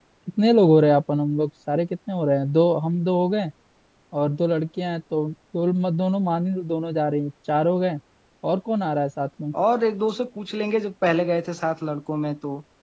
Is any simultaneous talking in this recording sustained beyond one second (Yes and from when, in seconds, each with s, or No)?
No